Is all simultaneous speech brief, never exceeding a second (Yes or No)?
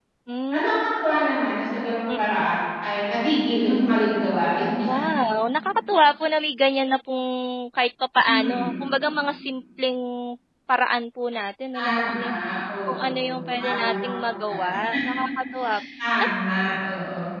No